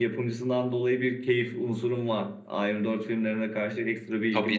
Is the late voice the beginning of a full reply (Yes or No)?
Yes